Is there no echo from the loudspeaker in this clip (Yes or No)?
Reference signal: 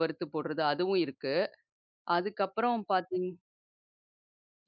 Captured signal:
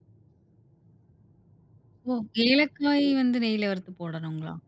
Yes